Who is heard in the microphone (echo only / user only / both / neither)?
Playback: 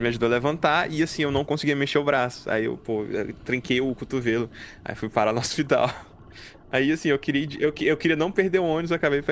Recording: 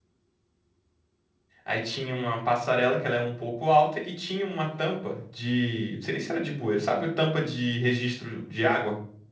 user only